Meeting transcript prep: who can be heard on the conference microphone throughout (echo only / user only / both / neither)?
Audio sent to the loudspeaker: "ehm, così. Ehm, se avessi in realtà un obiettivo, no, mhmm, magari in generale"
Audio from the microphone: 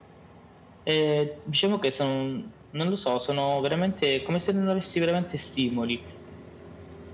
user only